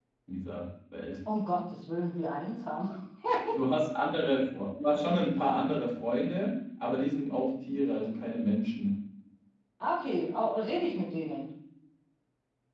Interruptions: none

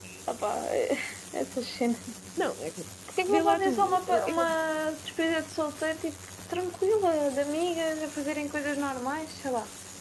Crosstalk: present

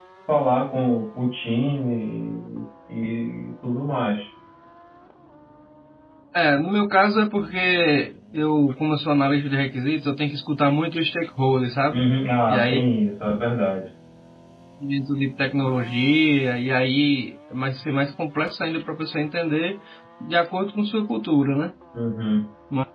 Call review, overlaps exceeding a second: none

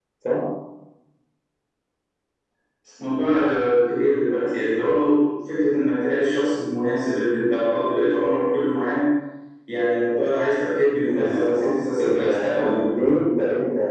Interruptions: present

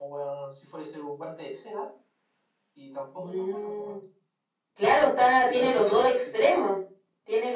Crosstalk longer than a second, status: present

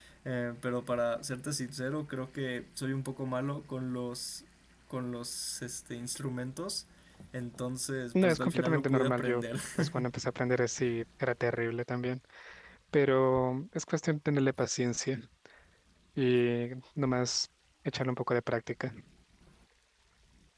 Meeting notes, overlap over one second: present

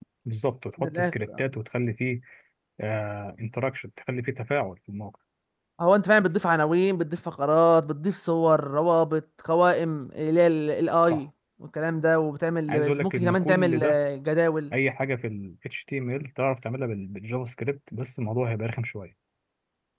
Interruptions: present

